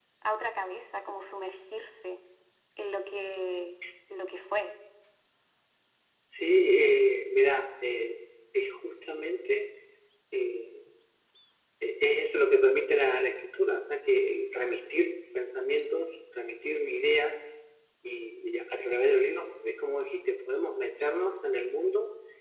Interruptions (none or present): none